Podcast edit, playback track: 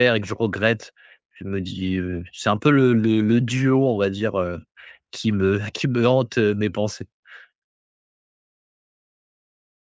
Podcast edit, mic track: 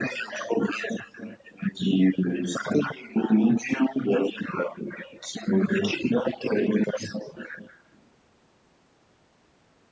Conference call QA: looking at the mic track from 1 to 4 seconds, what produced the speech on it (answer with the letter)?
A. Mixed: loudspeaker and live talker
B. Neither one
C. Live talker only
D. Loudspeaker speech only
D